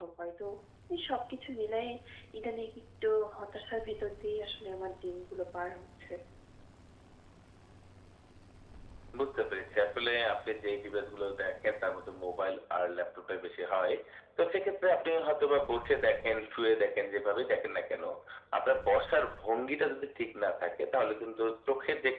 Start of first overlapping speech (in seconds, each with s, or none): none